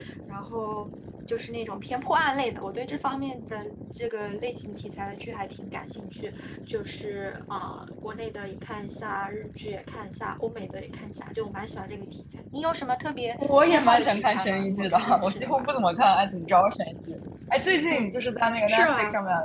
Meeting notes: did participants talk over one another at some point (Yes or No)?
Yes